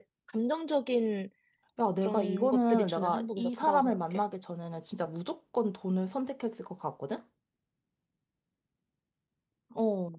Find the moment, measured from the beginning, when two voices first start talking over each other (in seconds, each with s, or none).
2.0 s